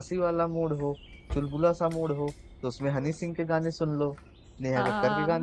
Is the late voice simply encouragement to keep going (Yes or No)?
No